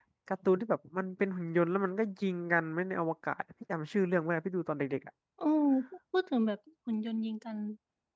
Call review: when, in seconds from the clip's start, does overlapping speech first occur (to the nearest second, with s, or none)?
none